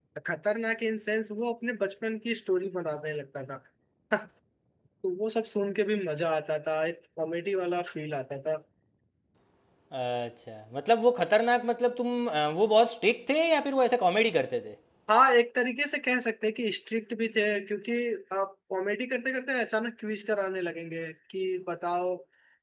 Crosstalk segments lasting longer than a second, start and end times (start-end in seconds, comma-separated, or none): none